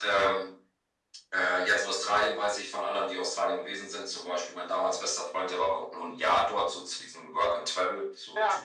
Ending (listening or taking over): listening